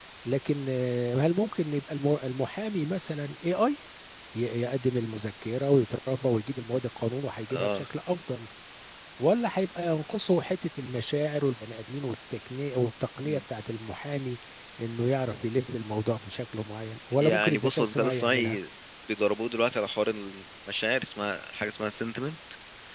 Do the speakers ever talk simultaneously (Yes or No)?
Yes